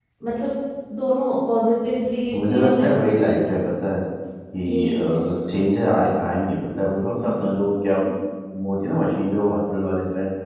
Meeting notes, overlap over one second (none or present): present